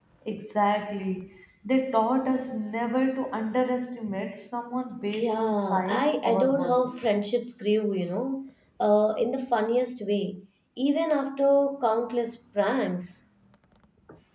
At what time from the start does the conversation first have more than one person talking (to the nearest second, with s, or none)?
5 s